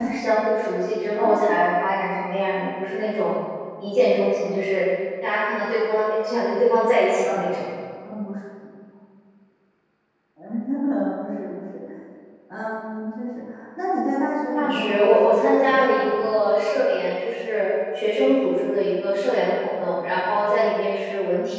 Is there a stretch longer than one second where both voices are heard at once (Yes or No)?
Yes